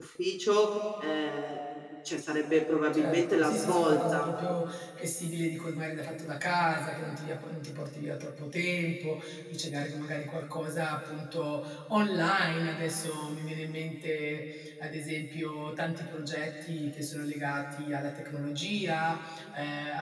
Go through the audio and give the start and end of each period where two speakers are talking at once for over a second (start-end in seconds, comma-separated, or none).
2.9-4.3